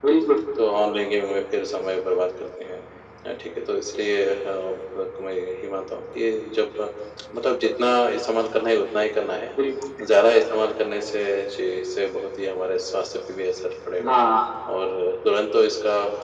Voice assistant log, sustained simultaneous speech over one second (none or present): none